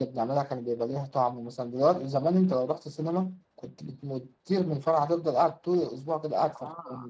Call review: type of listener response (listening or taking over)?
listening